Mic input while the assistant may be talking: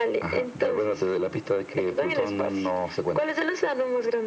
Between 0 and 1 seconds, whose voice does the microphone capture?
echo only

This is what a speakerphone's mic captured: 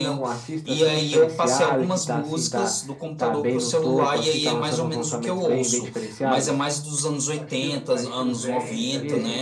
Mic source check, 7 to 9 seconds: both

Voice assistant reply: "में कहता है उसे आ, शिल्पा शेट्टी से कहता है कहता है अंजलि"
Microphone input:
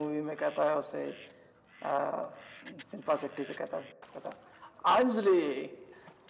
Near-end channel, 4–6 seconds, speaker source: echo only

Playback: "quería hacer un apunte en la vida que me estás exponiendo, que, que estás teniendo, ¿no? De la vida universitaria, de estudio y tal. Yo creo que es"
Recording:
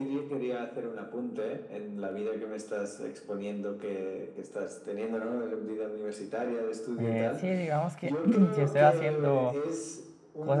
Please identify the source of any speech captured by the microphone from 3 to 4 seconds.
echo only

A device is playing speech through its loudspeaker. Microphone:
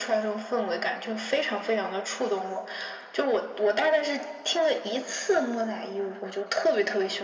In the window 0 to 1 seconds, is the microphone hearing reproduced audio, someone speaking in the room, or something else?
echo only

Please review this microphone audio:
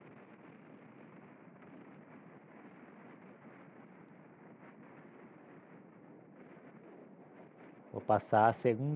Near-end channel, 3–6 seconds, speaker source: neither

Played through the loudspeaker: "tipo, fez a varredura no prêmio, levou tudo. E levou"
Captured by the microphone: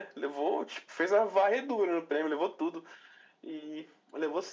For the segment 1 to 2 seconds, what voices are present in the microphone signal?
echo only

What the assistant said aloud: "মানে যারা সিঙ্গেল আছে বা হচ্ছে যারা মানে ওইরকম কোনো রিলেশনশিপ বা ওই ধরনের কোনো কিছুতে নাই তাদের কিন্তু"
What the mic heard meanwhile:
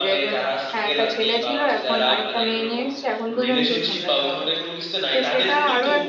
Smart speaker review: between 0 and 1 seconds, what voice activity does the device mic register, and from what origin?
both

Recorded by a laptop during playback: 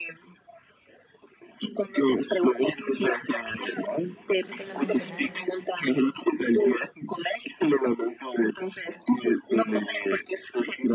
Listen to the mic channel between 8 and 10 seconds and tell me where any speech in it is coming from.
echo only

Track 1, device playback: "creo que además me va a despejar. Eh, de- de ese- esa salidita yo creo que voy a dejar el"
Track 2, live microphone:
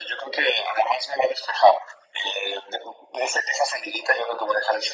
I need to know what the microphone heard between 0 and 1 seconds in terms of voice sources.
echo only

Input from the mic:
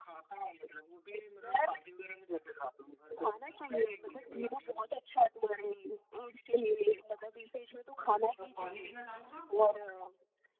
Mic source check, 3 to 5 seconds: echo only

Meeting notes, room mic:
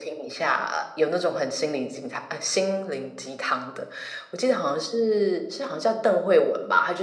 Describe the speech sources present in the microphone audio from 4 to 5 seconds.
echo only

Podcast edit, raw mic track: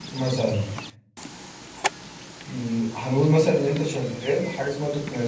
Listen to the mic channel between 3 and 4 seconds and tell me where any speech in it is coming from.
user only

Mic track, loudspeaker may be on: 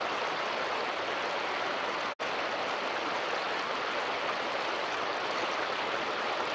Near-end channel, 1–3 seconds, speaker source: neither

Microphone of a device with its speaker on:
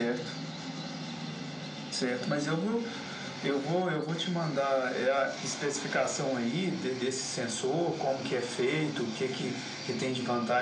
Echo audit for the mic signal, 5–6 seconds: echo only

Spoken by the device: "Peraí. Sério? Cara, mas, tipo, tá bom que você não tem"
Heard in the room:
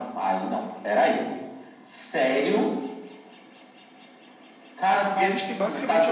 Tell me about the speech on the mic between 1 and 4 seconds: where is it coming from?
echo only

